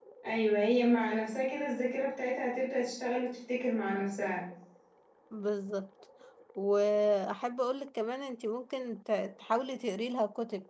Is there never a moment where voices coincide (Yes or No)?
Yes